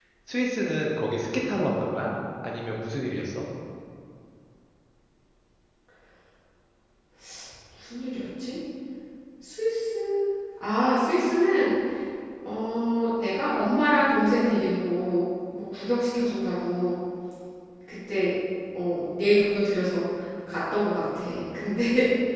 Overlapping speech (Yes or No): No